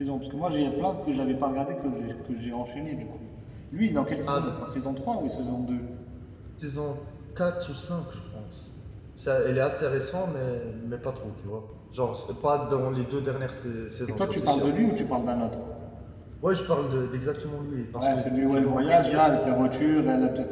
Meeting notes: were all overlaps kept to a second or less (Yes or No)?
No